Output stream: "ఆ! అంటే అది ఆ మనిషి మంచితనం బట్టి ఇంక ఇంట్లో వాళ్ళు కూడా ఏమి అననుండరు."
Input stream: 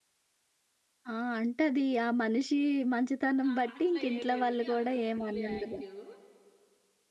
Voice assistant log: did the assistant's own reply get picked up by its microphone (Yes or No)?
Yes